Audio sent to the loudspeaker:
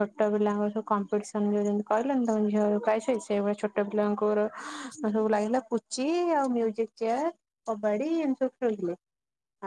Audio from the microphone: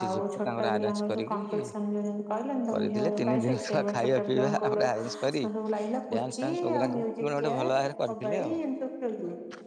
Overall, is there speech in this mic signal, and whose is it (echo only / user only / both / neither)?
both